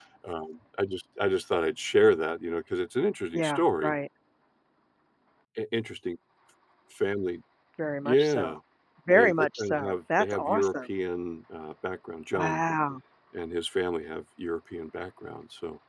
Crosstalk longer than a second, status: present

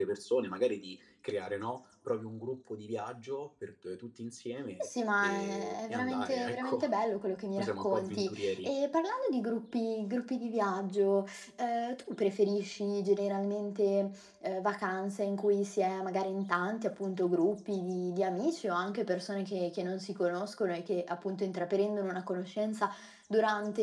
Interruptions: present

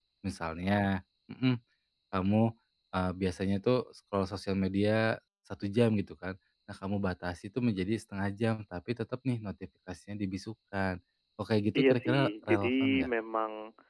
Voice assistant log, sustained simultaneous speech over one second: present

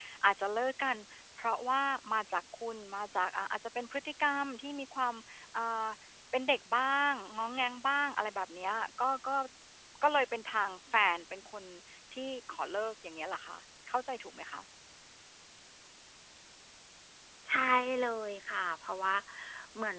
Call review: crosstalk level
none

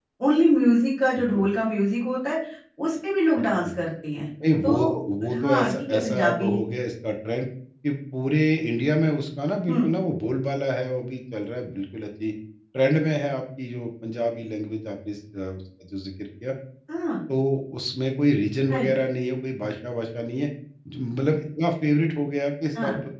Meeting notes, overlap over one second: present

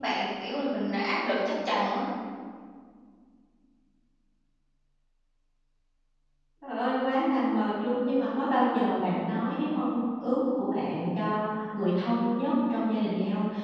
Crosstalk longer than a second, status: none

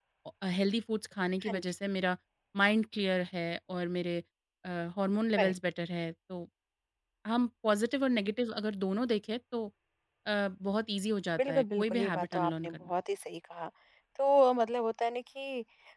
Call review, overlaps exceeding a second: present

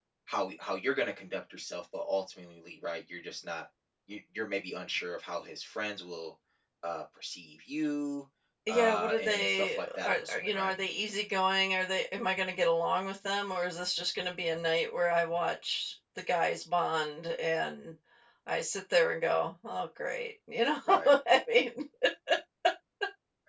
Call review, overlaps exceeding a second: present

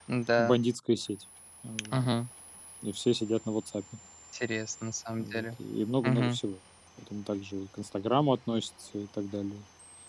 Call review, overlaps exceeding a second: none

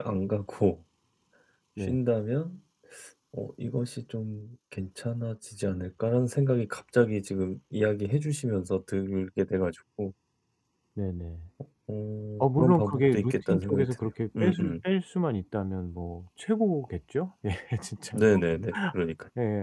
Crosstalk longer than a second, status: present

